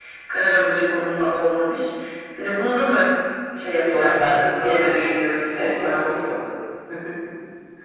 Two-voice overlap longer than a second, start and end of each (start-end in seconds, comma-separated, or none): 3.6-6.1